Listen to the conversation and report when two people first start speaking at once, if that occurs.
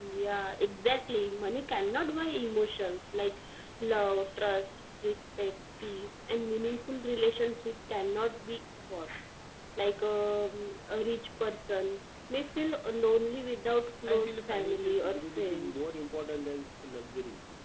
14 s

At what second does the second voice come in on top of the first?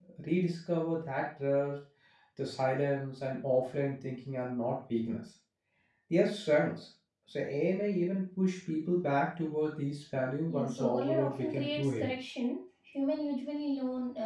10 s

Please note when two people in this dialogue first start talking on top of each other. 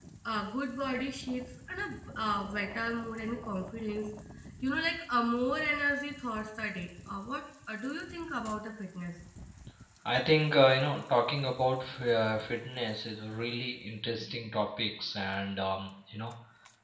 none

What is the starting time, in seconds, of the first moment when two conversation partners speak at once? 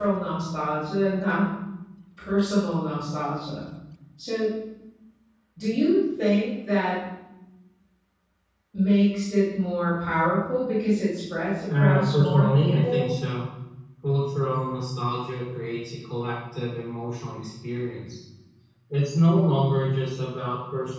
12 s

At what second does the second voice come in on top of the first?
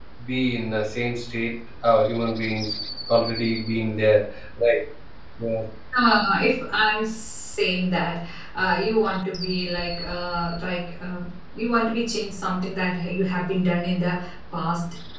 none

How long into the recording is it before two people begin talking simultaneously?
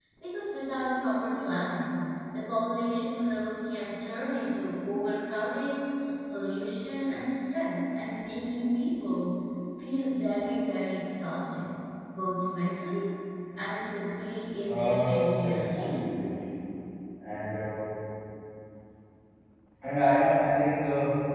15 s

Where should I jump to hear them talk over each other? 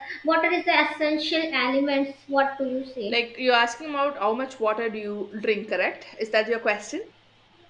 none

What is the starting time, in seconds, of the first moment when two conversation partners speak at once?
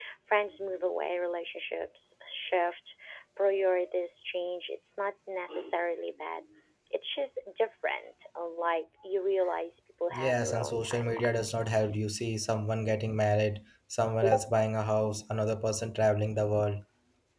10 s

